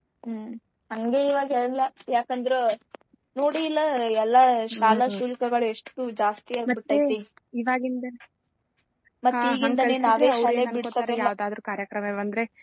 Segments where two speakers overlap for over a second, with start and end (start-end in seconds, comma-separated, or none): 9.3-11.2